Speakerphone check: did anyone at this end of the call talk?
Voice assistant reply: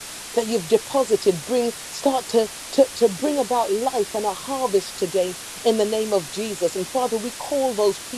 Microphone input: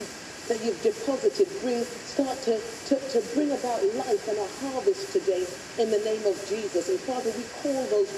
No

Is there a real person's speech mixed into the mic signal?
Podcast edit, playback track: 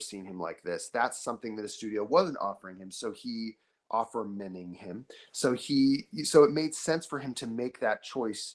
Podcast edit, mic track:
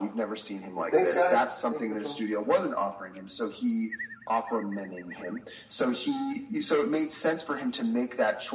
Yes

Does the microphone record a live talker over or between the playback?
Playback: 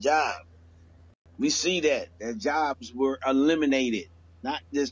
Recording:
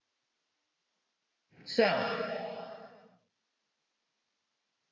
Yes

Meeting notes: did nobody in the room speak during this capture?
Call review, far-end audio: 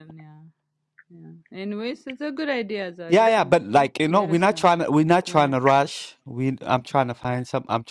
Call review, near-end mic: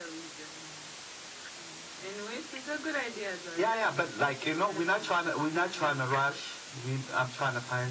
Yes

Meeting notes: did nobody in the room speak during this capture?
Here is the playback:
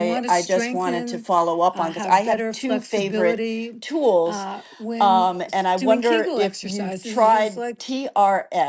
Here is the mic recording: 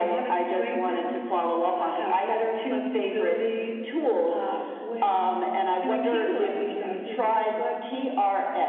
Yes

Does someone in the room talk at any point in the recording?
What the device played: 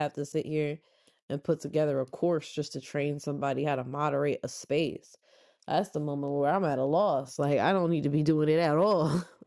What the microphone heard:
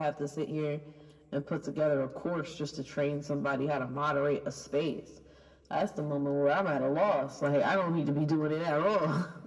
No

